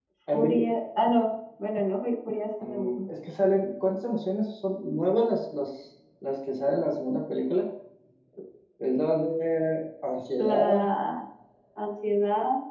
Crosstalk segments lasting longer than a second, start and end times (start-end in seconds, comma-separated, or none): none